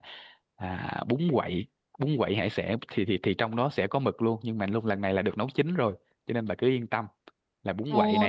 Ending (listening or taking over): taking over